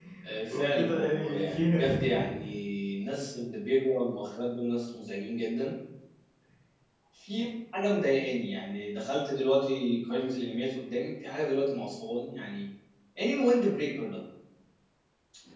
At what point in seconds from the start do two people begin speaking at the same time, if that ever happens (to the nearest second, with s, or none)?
1 s